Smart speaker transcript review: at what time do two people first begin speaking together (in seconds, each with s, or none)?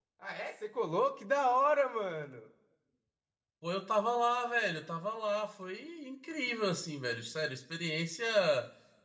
none